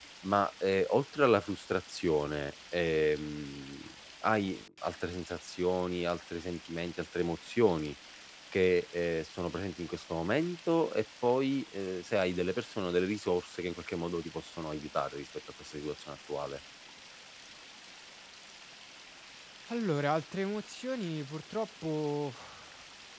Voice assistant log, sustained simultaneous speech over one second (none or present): none